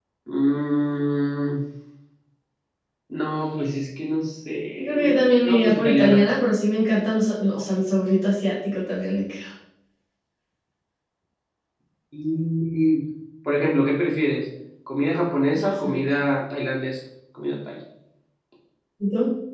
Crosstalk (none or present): present